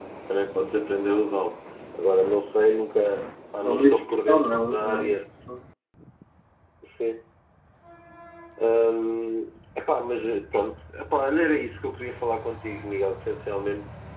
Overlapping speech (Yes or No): Yes